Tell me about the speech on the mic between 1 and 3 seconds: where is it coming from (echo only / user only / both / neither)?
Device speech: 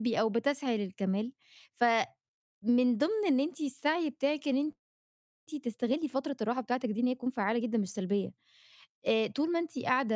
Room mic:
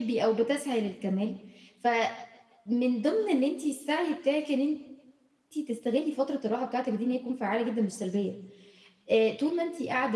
echo only